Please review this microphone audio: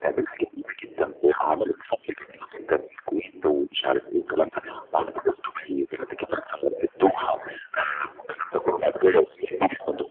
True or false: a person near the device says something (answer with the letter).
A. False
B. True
A